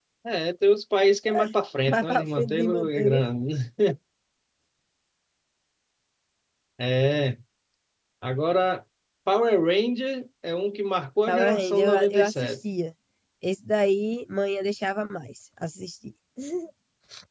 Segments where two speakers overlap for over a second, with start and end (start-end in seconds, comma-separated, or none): 1.9-3.2, 11.3-12.6